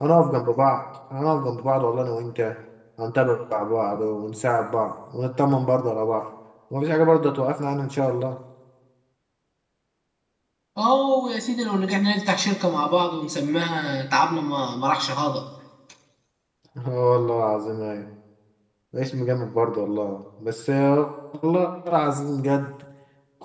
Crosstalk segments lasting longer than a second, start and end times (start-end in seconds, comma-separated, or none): none